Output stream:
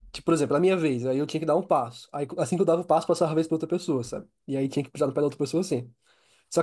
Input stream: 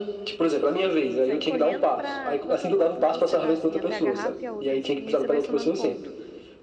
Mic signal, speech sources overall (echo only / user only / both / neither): both